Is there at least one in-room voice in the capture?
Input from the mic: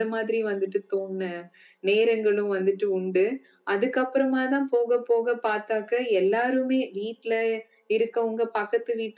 No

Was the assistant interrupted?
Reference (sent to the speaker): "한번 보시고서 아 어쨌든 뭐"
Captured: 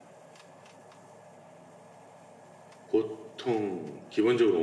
Yes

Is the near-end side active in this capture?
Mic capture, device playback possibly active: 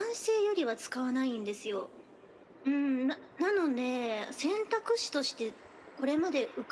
No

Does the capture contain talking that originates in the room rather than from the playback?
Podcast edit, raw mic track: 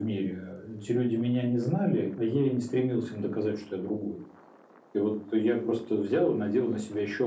No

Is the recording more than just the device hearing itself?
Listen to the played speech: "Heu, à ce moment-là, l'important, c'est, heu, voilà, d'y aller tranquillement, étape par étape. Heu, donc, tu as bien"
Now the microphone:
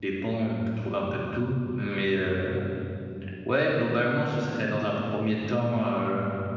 Yes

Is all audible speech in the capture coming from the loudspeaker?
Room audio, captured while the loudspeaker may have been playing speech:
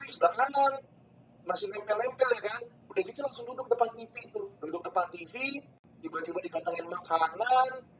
Yes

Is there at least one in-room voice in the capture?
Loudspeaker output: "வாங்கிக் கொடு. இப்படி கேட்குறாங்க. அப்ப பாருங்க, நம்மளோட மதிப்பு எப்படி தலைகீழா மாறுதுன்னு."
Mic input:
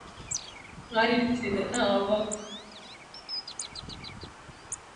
Yes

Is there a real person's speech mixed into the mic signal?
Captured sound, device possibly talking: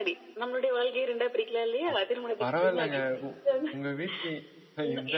Yes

